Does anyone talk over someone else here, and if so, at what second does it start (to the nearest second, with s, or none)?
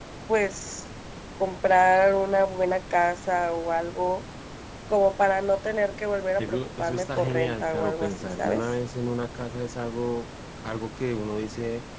6 s